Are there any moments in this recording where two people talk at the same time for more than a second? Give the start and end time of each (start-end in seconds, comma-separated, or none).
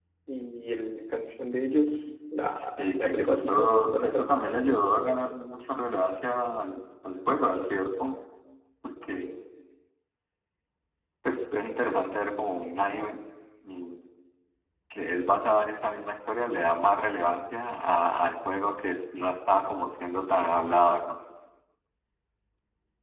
2.5-4.4